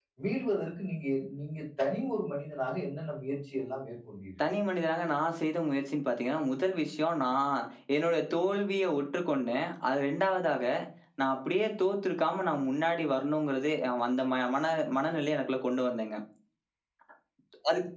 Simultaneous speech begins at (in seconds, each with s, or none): none